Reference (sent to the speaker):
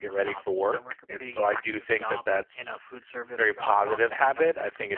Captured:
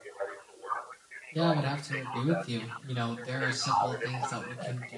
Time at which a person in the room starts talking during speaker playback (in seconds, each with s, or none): 1.3 s